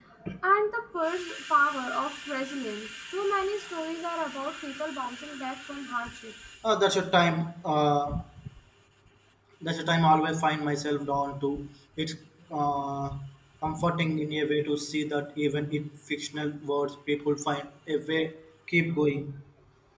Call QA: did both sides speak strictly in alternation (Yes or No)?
Yes